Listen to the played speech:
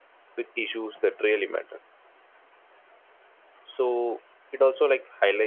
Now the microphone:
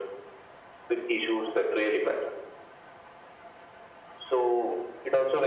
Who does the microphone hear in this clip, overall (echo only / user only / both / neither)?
echo only